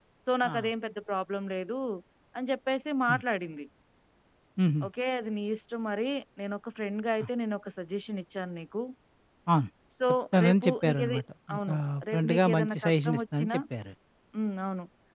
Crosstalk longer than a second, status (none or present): present